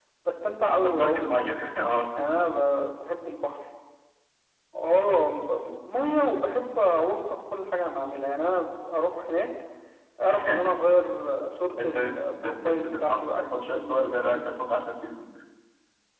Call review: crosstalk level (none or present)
present